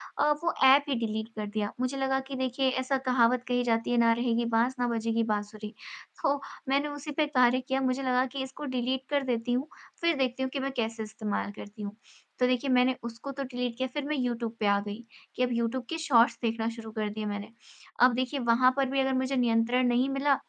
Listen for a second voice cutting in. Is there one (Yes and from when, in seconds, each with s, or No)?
No